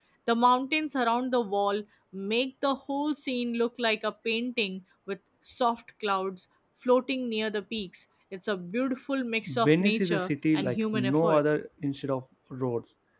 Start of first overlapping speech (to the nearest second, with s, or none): 9 s